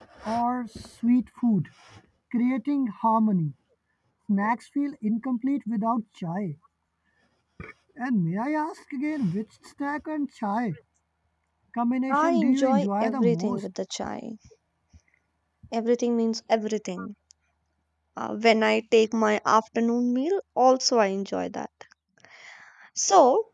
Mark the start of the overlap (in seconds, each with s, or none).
12.1 s